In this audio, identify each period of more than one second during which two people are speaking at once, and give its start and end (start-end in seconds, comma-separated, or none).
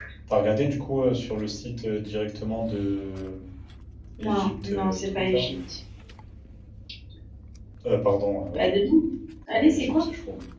4.2-5.5